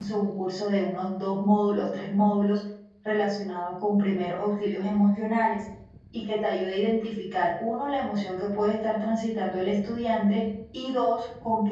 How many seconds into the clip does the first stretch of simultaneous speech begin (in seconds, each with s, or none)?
none